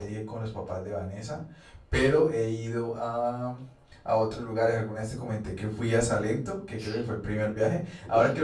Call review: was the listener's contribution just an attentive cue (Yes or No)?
Yes